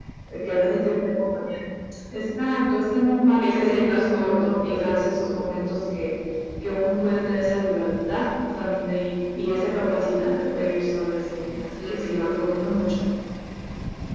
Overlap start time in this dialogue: 3.4 s

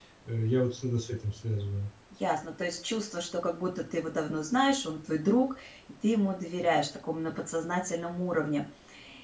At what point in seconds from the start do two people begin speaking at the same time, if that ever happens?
none

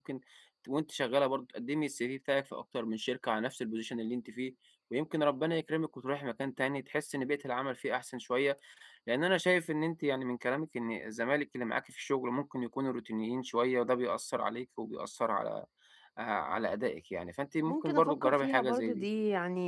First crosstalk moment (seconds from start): 17.7 s

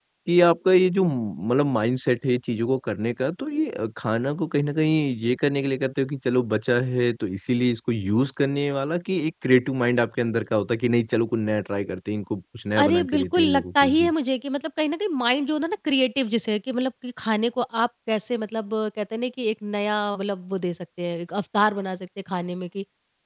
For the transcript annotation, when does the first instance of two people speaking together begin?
12.8 s

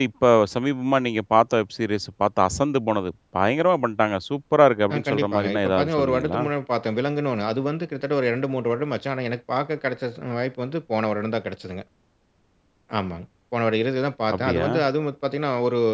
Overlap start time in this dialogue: 4.9 s

